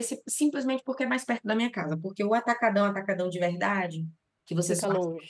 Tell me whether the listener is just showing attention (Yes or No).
Yes